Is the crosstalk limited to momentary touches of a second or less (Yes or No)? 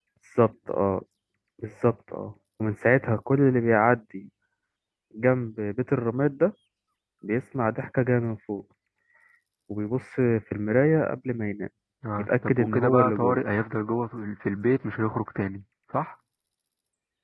No